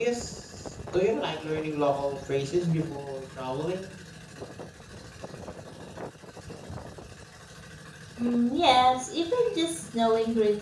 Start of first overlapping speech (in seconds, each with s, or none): none